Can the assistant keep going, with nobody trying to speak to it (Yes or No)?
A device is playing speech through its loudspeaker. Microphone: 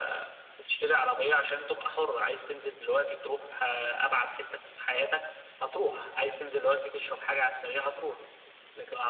Yes